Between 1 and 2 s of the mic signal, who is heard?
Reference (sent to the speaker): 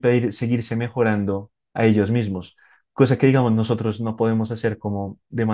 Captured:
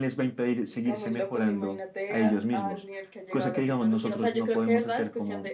both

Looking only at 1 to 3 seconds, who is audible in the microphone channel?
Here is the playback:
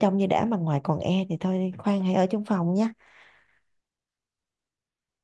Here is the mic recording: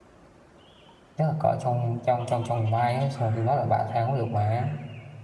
user only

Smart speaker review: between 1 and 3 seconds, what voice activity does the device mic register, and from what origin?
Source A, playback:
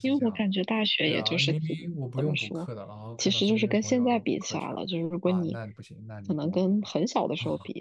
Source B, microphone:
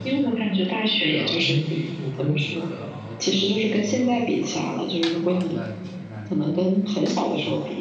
echo only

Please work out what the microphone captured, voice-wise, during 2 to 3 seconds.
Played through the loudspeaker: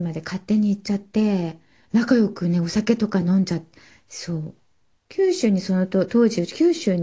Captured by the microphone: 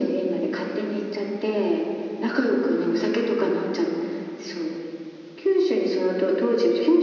echo only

